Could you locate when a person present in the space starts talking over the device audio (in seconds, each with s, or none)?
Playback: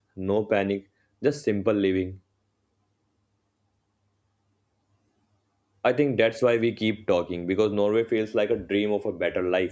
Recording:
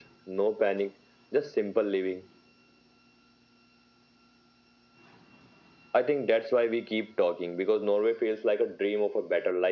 none